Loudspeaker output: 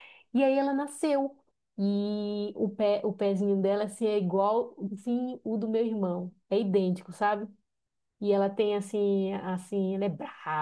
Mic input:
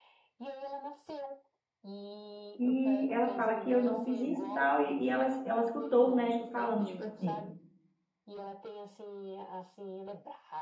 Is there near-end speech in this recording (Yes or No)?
Yes